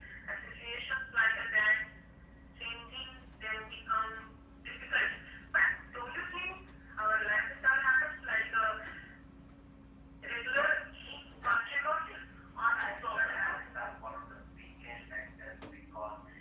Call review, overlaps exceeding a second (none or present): present